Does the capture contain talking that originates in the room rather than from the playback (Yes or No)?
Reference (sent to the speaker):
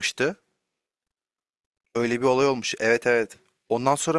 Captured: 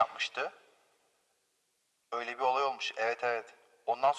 No